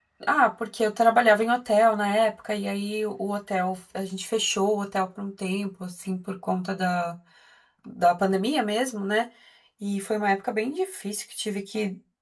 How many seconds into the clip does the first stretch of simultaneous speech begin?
none

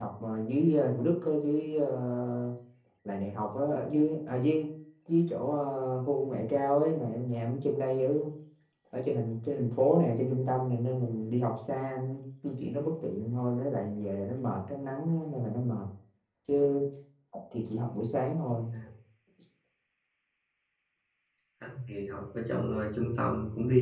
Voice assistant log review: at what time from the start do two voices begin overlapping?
none

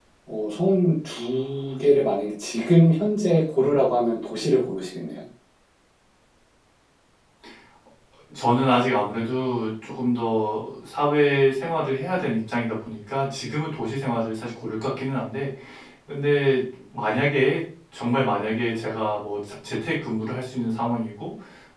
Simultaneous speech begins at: none

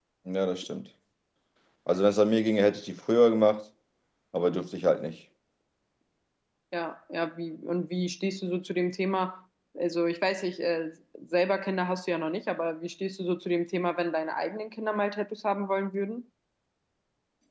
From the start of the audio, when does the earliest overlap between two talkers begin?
none

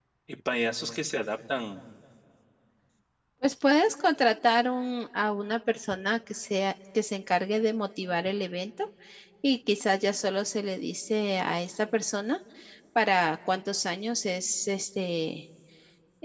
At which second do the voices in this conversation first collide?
none

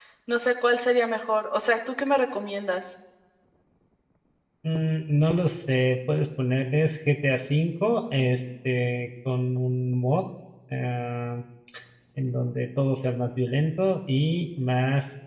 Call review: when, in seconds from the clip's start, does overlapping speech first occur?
none

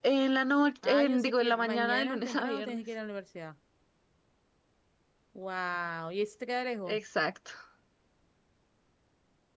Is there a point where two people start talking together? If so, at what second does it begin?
0.8 s

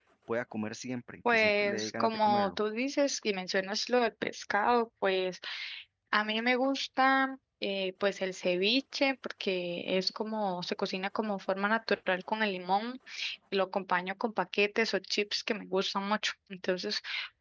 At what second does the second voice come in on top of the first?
1.3 s

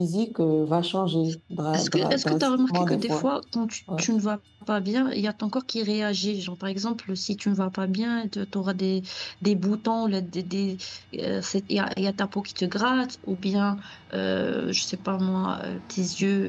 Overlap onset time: 1.7 s

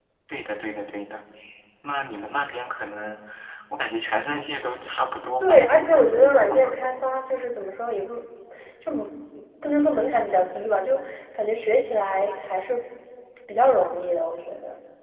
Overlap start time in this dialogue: 5.4 s

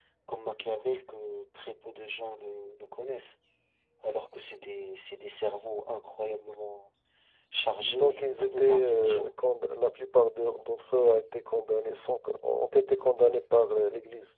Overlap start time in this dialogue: 7.8 s

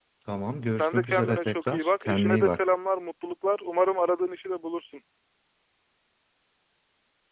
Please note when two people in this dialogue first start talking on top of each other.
0.8 s

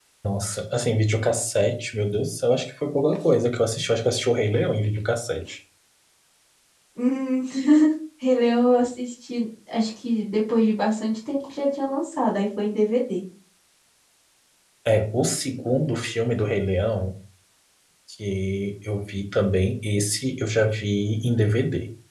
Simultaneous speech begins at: none

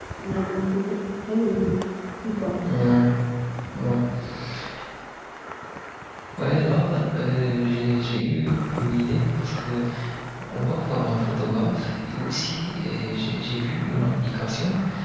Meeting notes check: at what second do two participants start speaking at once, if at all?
none

